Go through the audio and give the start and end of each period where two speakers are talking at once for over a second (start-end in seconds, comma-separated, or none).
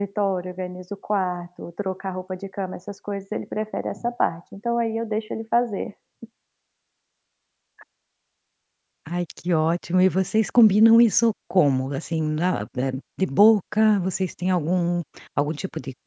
none